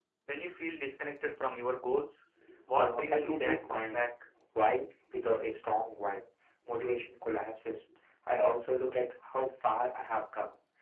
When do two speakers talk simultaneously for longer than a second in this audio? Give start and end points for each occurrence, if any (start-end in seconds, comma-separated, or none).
2.7-4.1